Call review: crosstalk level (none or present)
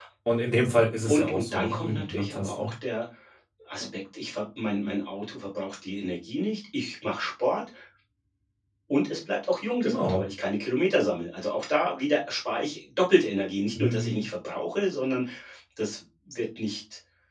present